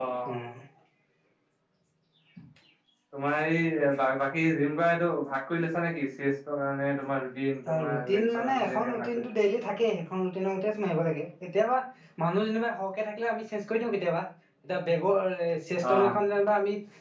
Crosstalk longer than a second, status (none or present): present